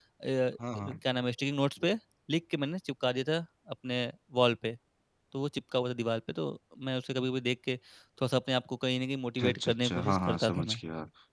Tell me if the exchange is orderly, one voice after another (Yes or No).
No